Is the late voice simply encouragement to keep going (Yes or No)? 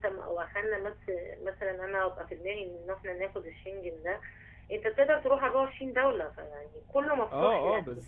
No